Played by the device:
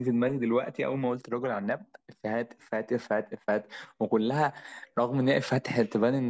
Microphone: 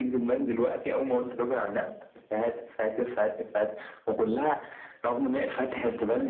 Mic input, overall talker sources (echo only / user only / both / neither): echo only